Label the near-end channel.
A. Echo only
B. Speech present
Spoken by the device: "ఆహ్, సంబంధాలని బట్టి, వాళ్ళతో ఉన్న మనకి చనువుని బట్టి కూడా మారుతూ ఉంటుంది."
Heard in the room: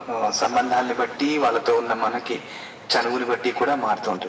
A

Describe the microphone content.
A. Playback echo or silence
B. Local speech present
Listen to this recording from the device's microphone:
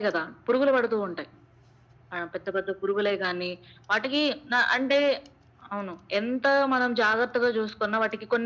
A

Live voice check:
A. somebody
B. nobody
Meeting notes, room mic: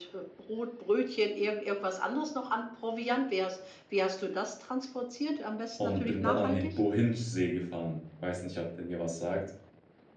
A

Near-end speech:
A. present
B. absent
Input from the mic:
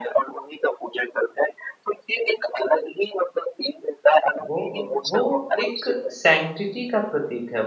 A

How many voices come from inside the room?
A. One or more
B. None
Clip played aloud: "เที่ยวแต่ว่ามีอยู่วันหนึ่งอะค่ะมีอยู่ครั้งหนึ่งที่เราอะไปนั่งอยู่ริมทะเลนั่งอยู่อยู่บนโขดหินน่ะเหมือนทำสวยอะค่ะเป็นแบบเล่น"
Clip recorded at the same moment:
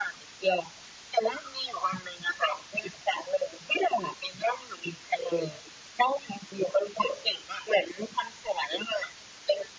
B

